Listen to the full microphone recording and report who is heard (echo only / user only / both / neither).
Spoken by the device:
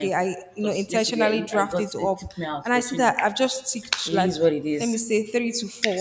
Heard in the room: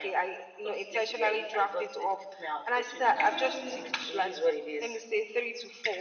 both